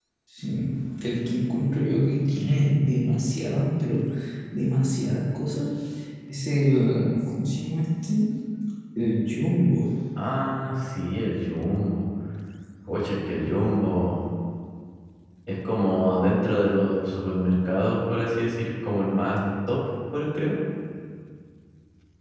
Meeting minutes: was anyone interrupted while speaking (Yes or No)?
No